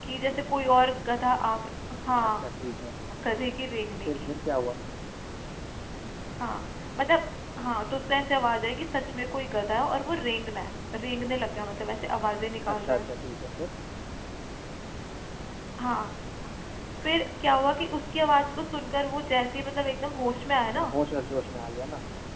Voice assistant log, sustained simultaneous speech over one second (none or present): none